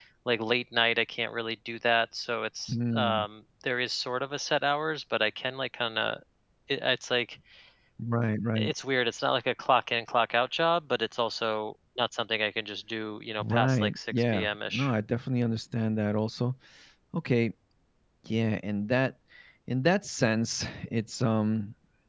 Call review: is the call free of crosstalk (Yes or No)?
No